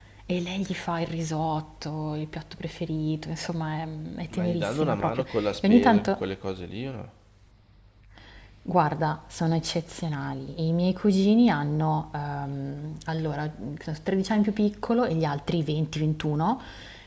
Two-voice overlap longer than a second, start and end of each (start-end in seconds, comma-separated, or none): 4.3-6.2